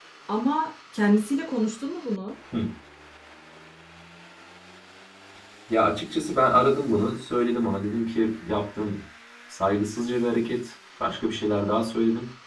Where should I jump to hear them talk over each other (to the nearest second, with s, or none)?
none